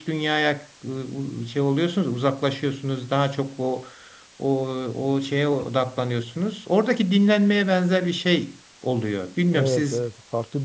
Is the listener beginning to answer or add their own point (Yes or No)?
Yes